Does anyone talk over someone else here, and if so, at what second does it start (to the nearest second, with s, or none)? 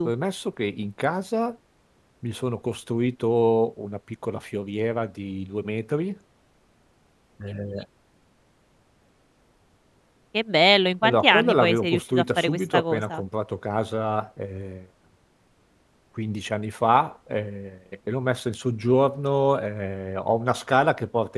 11 s